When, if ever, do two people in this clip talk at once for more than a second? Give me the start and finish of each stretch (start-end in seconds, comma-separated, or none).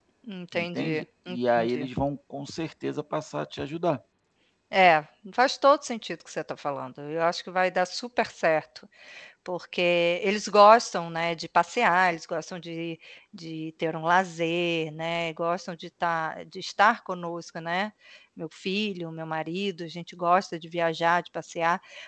0.5-1.9